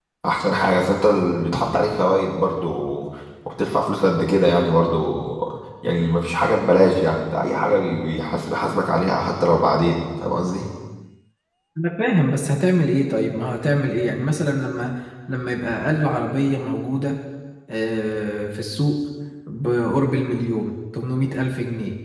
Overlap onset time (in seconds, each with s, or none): none